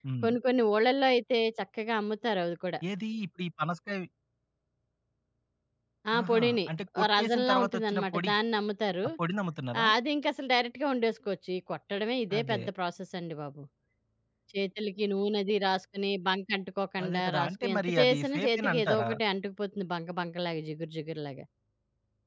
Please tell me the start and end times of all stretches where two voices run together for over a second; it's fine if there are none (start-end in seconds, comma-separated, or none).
7.0-8.3, 17.0-19.1